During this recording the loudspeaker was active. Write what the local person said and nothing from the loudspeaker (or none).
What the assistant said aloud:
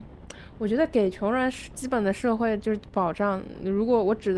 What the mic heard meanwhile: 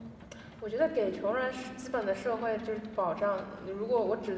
none